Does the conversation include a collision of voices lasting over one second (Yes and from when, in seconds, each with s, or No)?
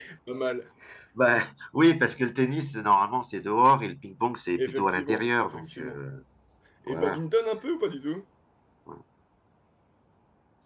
Yes, from 4.5 s